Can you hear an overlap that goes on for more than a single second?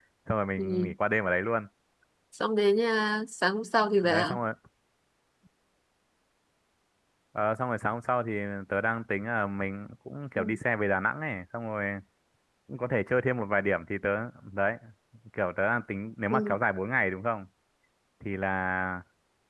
No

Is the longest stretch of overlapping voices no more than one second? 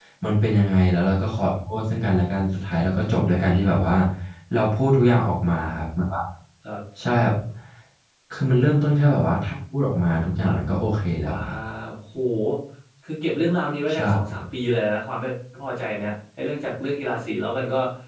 Yes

